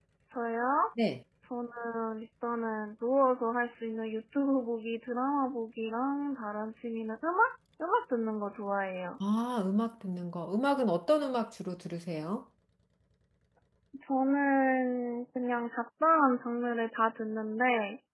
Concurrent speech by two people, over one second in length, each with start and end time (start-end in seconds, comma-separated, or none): none